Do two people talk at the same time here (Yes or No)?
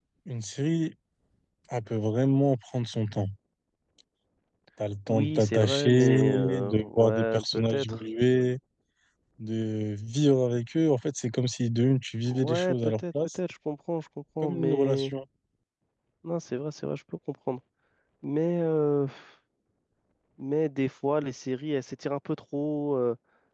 Yes